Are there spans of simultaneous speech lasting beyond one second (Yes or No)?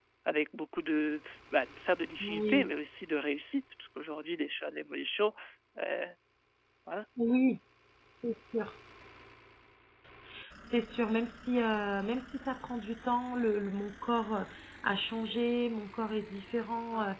No